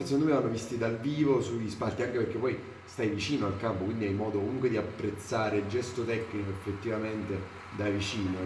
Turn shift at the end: No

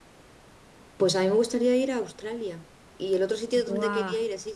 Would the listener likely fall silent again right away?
Yes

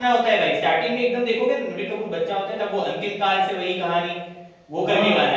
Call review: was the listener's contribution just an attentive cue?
No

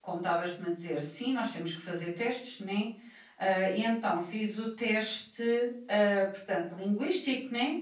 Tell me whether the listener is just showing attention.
Yes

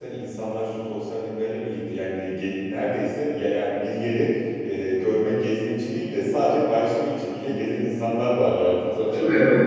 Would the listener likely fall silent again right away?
Yes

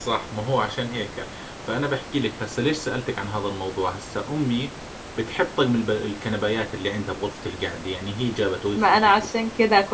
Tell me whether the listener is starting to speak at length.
Yes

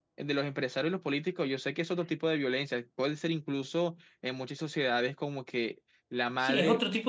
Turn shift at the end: Yes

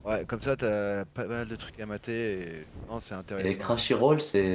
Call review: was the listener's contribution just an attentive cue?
No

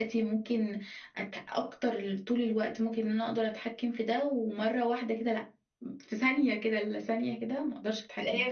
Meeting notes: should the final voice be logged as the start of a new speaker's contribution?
Yes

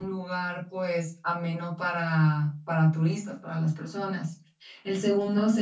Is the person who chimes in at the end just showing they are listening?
Yes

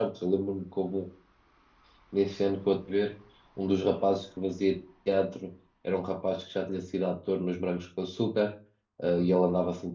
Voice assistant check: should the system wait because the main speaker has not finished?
Yes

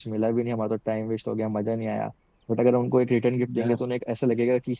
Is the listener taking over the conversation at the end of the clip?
No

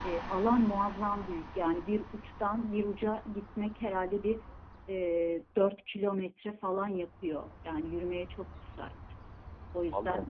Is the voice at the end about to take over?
No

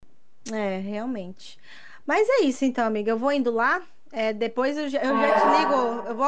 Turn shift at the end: No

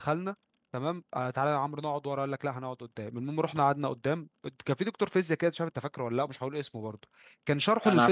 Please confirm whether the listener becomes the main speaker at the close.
No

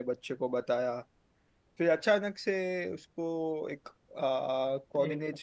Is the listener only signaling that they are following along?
Yes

